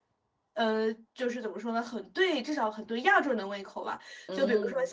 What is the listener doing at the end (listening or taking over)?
listening